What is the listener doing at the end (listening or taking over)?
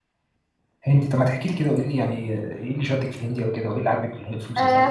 taking over